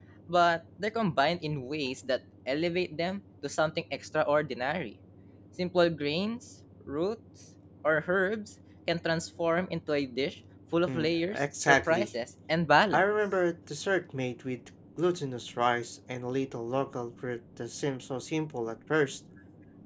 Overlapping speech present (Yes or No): Yes